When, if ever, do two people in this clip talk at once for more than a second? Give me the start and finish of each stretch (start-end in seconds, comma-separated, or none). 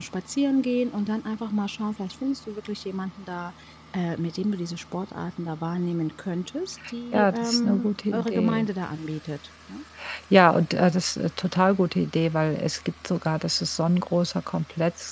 7.1-8.7